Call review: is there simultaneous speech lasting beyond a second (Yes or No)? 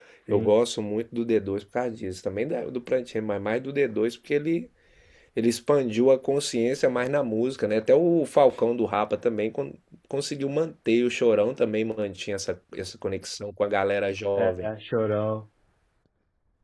No